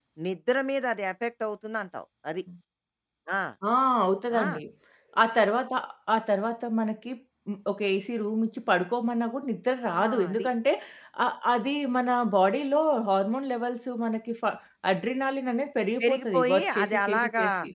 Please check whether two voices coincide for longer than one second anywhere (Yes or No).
Yes